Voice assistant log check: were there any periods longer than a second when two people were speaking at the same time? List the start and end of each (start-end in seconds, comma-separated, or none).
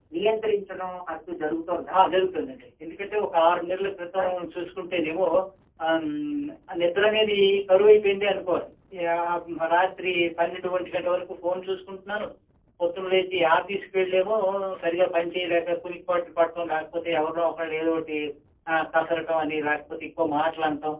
none